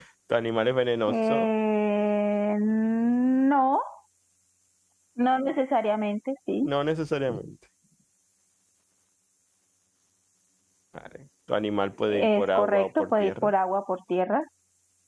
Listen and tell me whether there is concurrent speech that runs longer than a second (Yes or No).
Yes